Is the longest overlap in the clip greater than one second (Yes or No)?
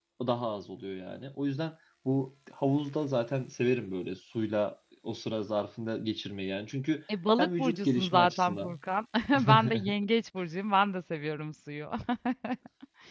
Yes